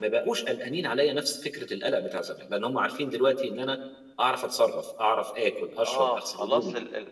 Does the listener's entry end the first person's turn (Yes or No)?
Yes